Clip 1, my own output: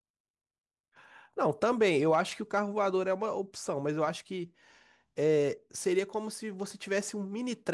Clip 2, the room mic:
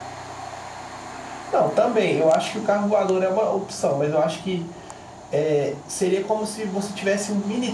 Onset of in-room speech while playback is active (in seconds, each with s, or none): none